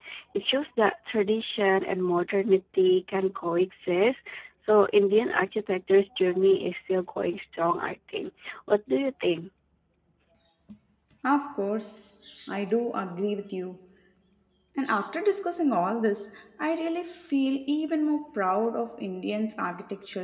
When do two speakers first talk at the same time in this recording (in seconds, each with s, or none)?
none